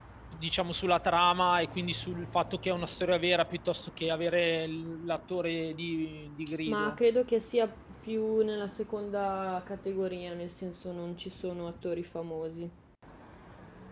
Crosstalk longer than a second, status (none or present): none